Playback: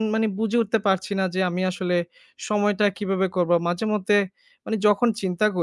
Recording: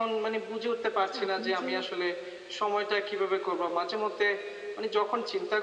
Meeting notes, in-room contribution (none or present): present